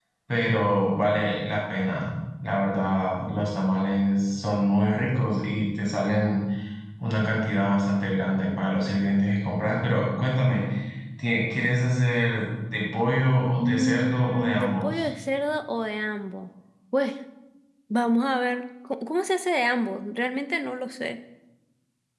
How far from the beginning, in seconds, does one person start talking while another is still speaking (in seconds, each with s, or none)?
13.6 s